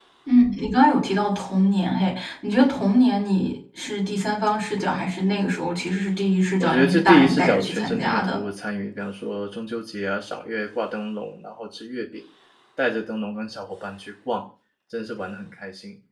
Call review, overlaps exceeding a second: present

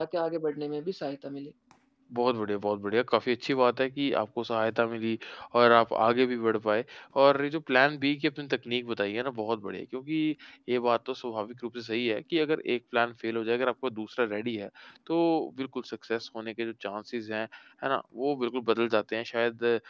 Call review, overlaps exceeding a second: none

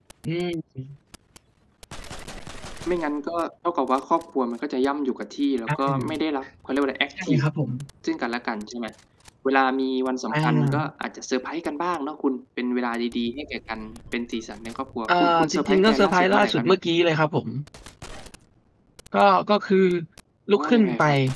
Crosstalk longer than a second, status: present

